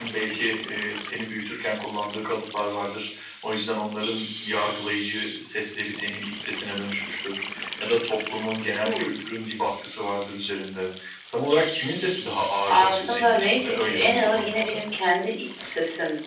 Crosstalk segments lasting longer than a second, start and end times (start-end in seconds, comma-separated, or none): 12.7-14.8